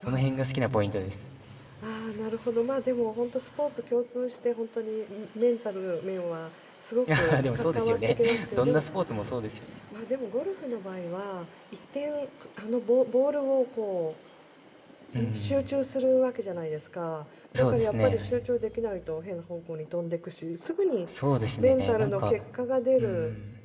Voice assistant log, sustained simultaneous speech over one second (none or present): present